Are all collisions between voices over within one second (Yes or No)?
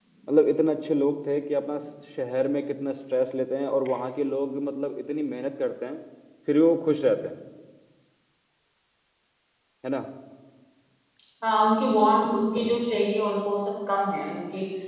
Yes